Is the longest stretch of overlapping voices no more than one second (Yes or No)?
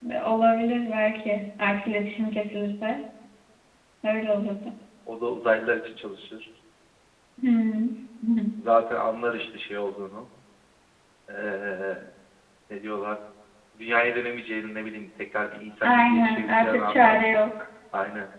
No